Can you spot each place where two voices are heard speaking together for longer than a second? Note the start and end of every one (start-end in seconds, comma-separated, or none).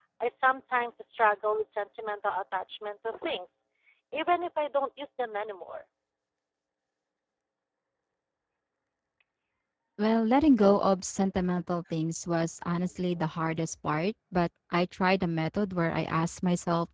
none